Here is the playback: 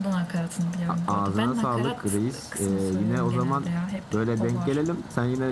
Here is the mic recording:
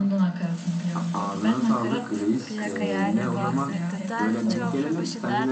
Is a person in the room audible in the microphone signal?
Yes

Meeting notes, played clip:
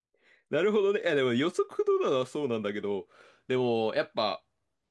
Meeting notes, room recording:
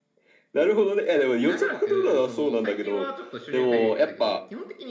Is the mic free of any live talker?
No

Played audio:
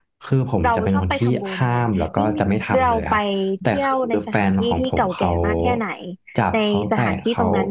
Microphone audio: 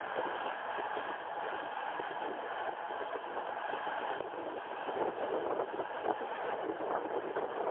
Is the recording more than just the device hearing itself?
No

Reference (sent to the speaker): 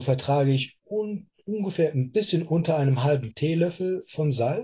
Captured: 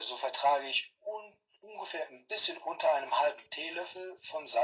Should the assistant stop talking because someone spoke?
No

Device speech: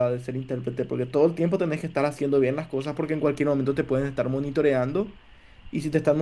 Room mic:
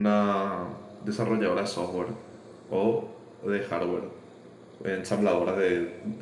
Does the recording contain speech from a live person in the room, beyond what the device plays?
Yes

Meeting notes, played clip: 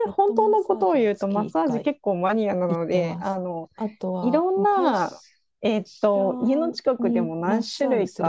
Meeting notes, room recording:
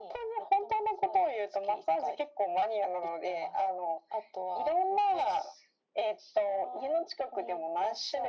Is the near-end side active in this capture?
No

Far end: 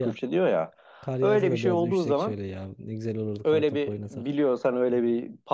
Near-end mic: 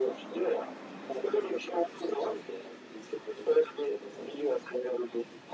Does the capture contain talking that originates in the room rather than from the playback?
No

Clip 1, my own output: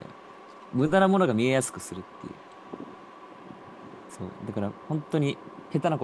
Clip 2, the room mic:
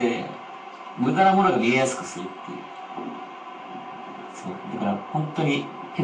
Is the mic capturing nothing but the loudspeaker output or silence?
Yes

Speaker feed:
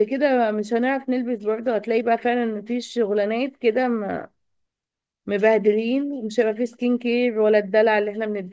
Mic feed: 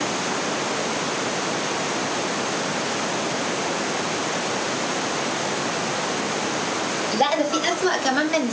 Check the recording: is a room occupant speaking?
Yes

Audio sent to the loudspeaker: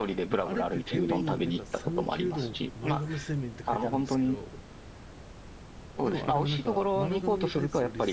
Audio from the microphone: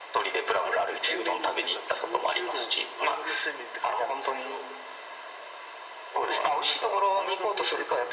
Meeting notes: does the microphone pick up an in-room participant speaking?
No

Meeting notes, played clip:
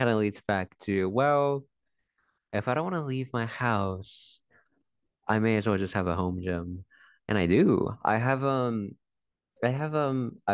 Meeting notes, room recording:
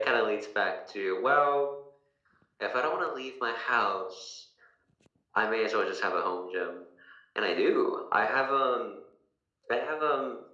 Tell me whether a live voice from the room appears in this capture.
No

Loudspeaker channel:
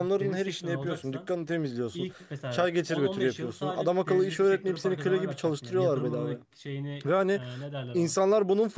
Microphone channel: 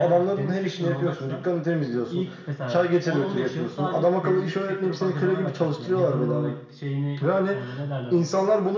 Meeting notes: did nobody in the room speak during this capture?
Yes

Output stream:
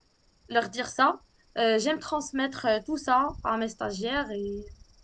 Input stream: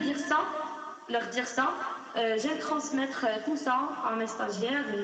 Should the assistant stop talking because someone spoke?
No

